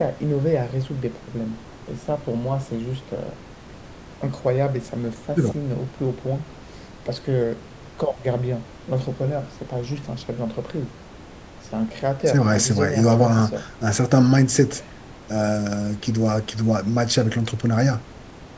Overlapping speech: Yes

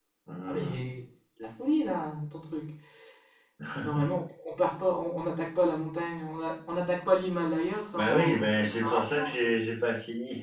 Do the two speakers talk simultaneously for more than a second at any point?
Yes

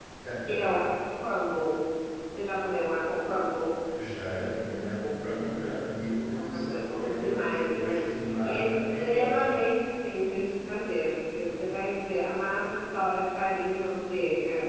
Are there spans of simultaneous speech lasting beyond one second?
Yes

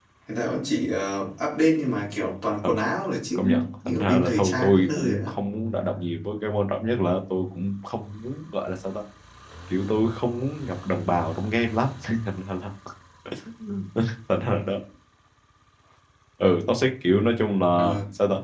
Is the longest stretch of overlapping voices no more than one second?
No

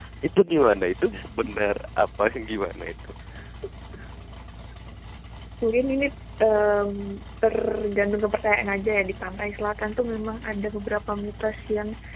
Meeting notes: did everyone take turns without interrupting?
Yes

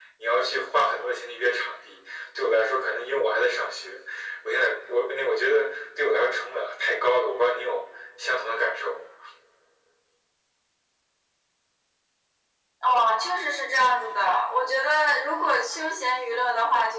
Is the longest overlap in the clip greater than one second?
No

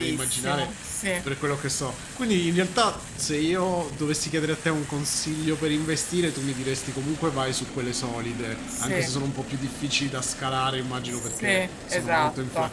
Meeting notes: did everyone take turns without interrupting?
No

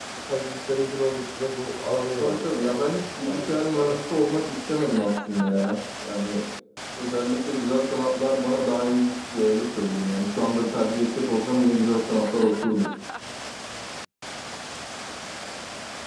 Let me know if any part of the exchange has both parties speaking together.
Yes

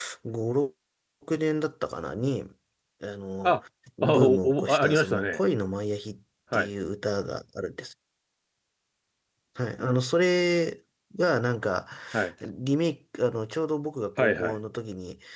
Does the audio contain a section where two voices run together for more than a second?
Yes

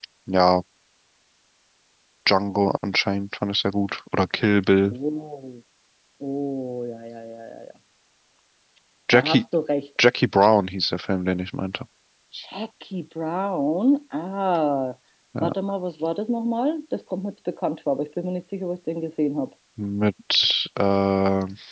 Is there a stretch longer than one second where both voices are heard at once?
No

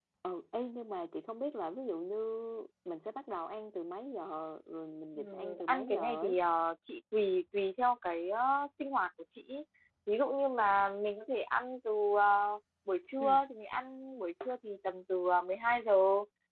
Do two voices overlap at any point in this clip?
Yes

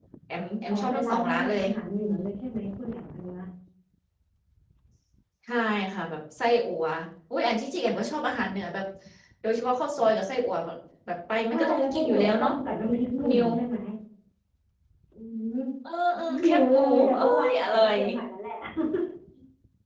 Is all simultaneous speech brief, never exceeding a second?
No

